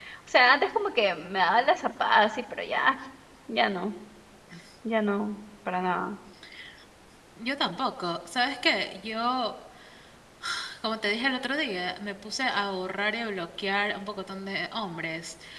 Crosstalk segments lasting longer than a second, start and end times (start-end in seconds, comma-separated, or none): none